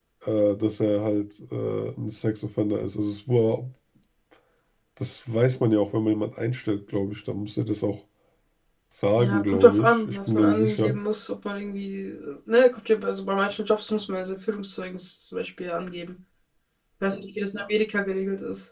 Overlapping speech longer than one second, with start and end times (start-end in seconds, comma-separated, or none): 9.2-10.9